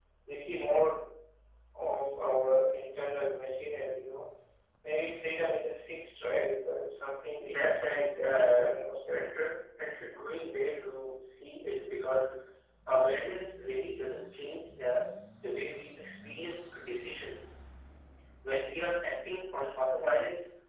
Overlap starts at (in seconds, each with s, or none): 7.4 s